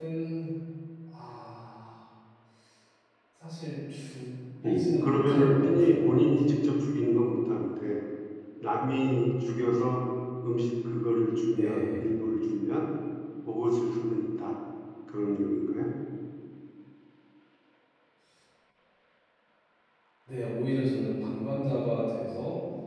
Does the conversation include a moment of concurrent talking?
Yes, from 4.7 s

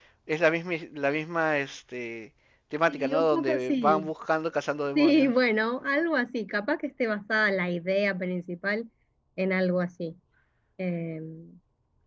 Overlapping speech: Yes, from 2.9 s

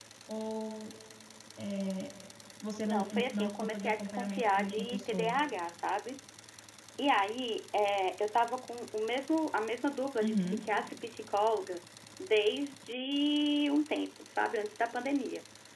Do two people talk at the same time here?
Yes, from 2.9 s

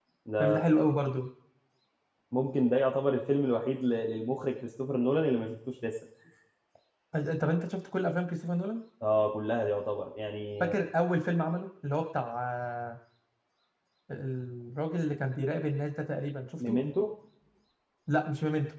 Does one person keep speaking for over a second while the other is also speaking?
No

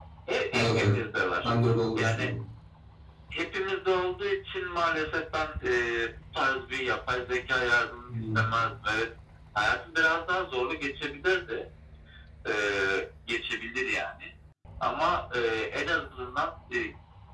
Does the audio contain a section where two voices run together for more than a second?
No

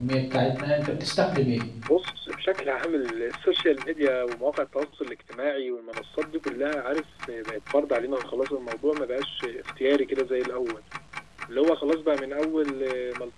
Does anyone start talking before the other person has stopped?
No

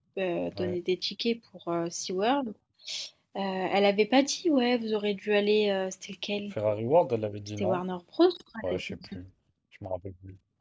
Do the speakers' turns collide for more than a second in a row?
No

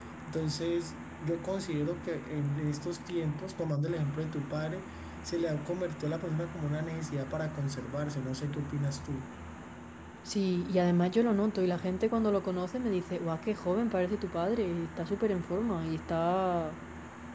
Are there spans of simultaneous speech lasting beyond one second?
No

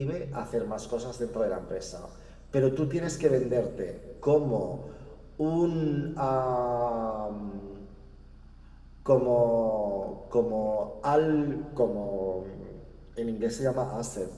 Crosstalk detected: No

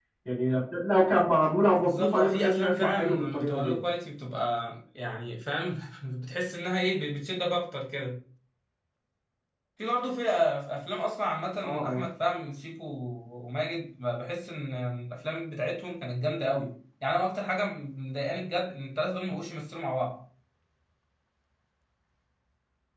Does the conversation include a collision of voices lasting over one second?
Yes, from 1.8 s

